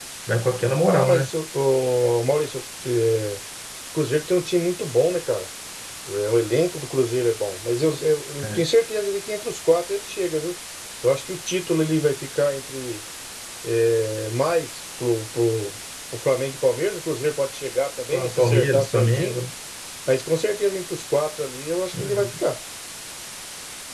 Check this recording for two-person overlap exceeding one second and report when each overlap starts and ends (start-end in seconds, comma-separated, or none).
18.1-19.4